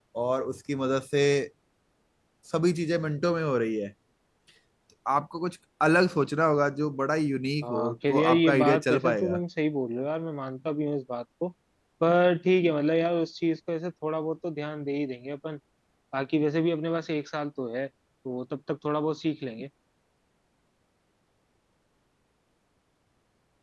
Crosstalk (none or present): present